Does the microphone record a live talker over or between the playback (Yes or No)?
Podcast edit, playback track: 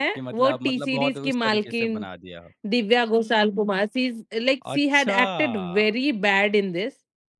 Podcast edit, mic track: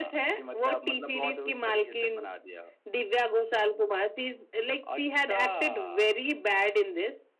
No